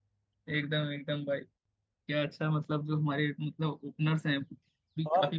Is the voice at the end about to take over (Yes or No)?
No